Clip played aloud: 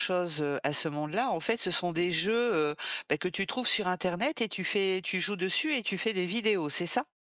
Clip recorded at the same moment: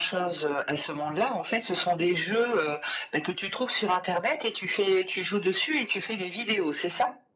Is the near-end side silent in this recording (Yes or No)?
Yes